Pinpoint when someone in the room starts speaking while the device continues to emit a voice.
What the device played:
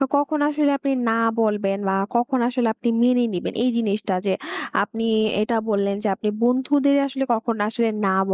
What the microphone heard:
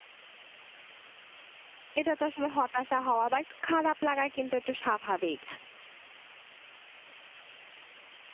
2 s

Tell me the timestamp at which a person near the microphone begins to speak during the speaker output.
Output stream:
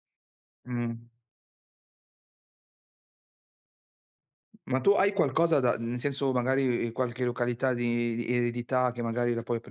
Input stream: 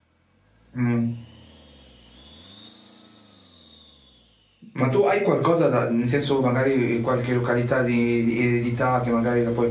none

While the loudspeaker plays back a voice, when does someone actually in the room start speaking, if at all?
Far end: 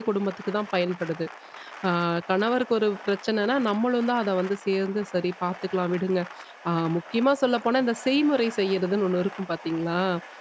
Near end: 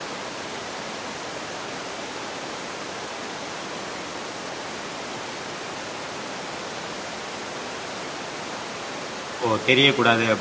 9 s

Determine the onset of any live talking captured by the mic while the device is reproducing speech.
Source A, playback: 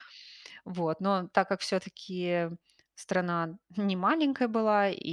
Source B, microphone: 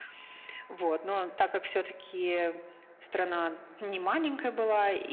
none

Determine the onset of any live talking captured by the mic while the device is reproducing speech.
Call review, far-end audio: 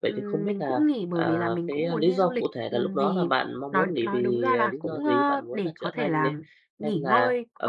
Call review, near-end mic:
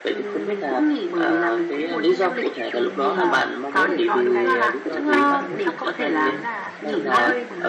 3 s

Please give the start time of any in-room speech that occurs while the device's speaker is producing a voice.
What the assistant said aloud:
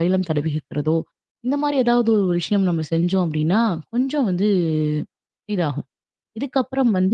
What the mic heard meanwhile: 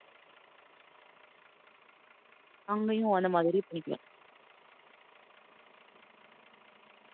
3 s

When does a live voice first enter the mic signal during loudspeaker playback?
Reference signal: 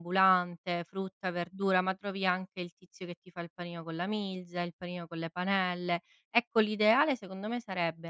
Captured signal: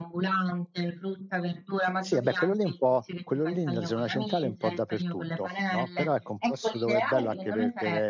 2 s

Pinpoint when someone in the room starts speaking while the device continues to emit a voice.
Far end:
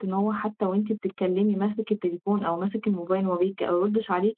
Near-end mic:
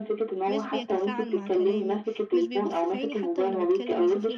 0 s

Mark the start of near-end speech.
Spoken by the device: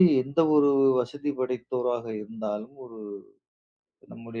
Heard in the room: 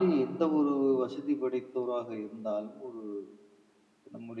none

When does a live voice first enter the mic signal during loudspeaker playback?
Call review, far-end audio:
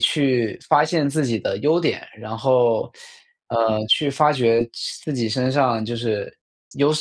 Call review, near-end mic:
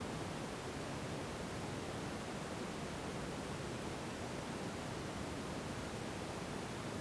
none

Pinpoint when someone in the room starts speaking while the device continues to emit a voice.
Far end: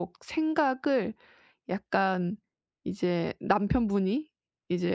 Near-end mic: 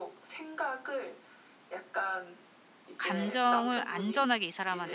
3 s

